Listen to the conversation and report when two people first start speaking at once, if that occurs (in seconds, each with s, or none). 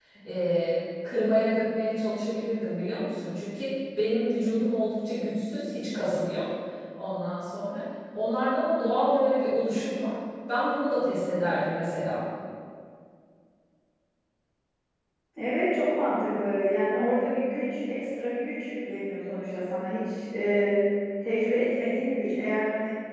none